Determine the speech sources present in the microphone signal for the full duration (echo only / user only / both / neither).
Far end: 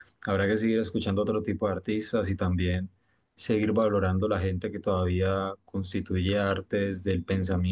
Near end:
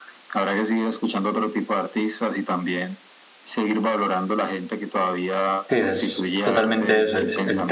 both